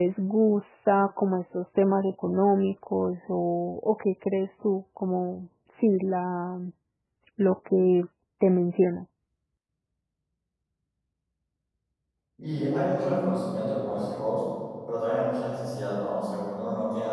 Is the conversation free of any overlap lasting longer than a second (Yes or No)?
Yes